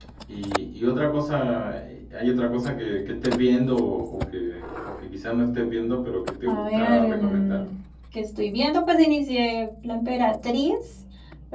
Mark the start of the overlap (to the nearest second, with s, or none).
6 s